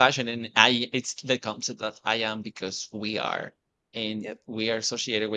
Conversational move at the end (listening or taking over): listening